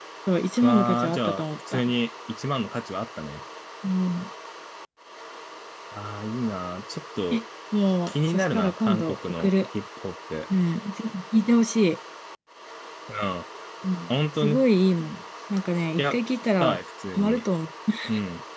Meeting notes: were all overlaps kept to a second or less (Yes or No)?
No